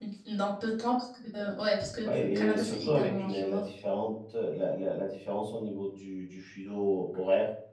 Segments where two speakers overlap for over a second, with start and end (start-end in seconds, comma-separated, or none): 2.0-3.6